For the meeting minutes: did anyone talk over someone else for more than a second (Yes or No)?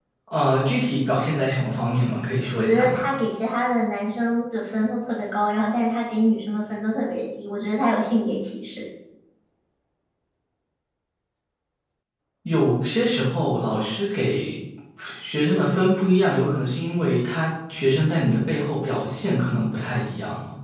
No